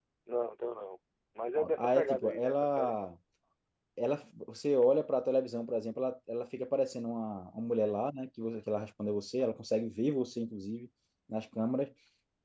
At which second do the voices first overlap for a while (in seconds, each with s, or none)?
1.6 s